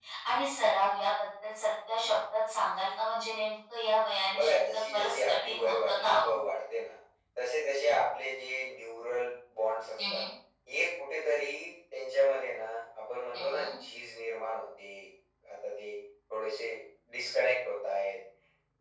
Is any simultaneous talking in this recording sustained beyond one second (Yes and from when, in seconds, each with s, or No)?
Yes, from 4.3 s